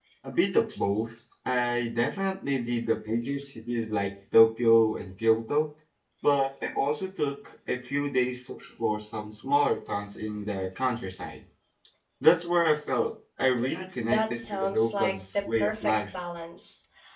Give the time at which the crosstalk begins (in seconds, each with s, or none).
14.0 s